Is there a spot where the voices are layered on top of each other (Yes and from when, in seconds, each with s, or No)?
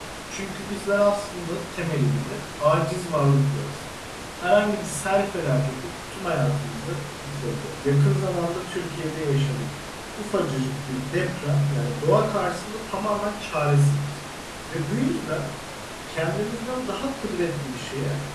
No